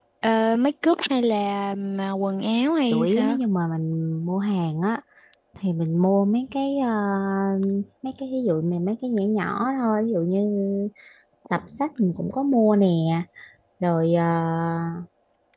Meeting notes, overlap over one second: none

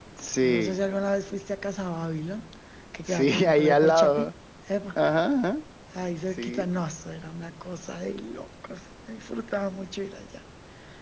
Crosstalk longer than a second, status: present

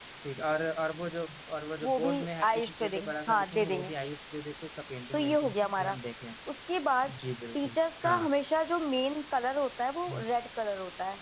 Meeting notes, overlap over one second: present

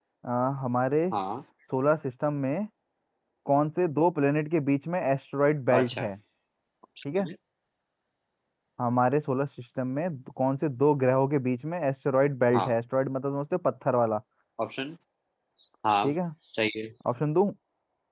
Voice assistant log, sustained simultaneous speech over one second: none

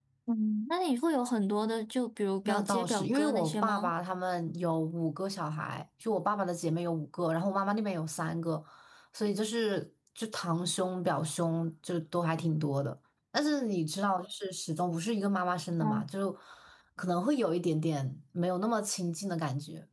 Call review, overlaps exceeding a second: present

